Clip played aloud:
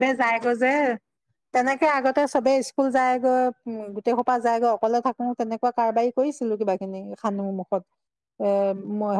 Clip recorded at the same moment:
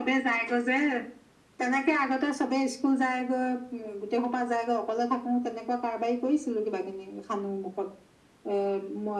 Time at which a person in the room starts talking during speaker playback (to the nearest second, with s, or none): none